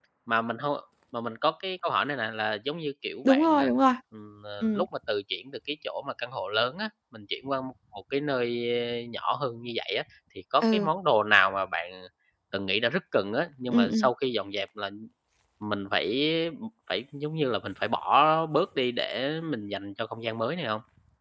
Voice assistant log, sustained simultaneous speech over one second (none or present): none